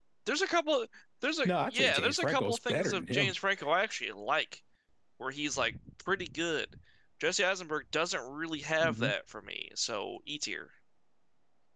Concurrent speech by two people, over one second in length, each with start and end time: 1.4-3.3

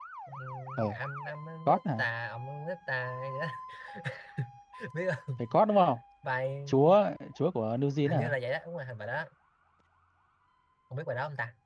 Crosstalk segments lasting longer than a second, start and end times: none

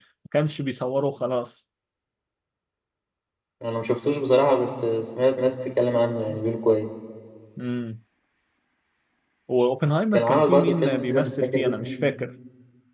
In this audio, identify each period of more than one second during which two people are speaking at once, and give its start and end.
10.1-11.9

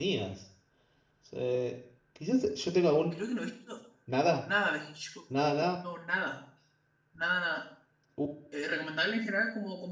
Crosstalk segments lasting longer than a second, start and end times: none

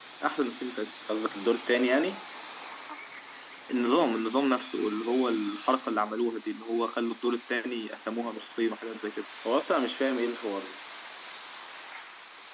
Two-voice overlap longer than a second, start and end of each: none

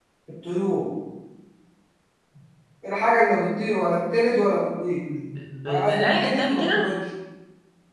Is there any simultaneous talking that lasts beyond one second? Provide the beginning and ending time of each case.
5.7-6.9

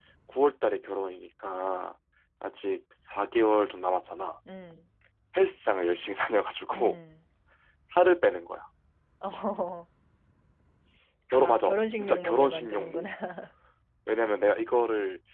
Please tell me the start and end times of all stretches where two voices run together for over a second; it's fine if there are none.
11.3-13.1

